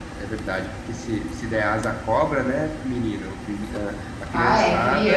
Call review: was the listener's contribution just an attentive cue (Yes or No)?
No